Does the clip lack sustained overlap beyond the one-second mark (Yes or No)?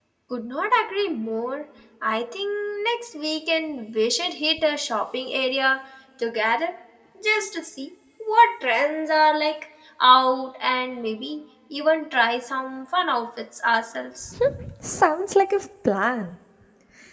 Yes